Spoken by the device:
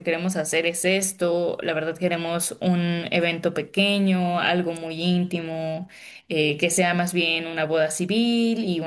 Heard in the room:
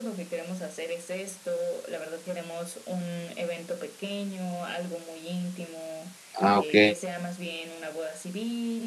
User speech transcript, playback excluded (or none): Ah, ok.